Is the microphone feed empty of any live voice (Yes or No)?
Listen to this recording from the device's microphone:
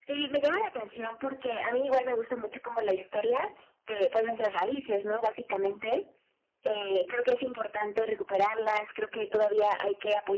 Yes